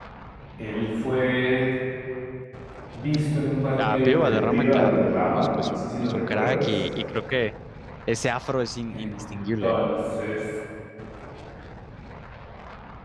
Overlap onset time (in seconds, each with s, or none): 3.8 s